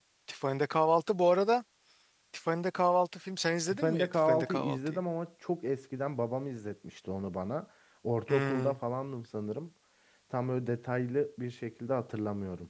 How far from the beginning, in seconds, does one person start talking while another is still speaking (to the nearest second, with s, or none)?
4 s